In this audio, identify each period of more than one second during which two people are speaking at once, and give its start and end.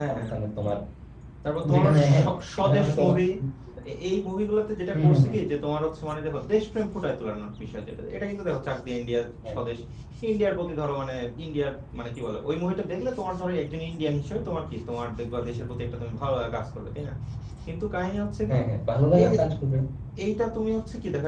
1.7-3.1

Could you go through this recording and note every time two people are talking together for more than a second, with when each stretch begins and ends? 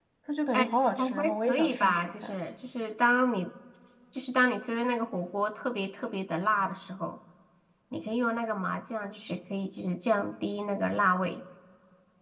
0.5-2.4

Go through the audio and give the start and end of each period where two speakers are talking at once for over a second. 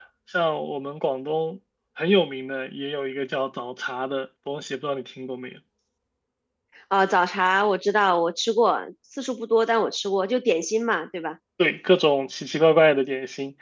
none

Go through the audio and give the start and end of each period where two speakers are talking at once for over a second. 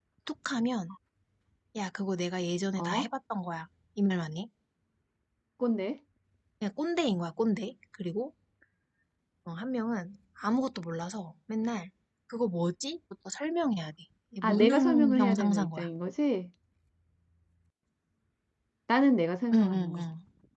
14.4-15.9

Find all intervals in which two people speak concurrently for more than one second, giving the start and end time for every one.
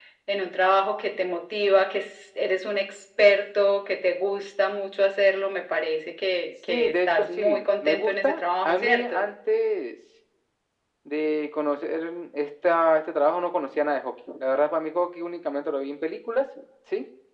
6.7-9.3

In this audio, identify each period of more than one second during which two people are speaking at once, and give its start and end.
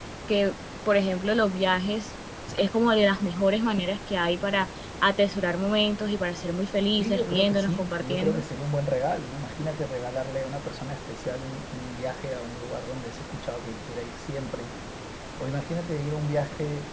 7.0-8.4

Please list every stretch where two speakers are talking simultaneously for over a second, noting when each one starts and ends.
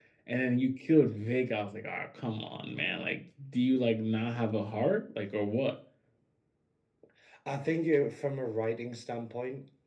none

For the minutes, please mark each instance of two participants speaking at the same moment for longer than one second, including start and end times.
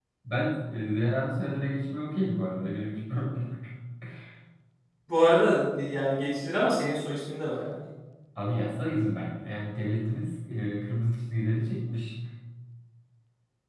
none

